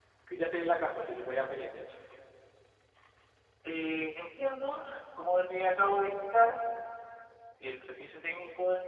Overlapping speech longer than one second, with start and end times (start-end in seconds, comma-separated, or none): none